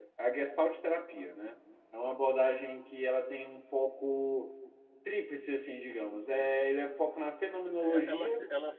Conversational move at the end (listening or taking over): taking over